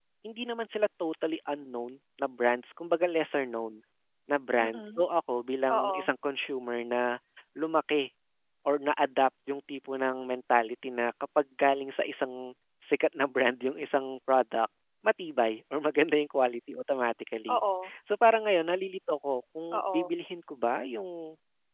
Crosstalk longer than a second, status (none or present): none